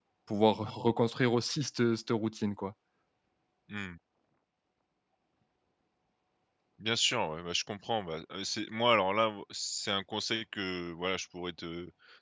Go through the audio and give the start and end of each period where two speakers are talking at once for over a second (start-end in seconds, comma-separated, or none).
none